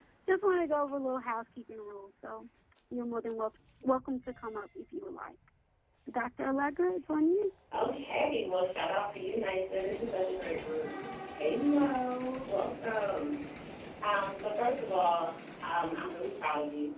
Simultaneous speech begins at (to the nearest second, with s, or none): none